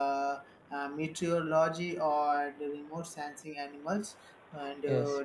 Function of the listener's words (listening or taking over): listening